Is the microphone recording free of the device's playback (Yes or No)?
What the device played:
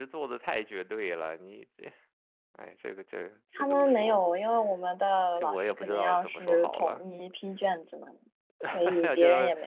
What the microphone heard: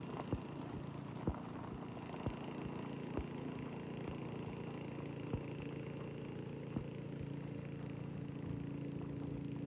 Yes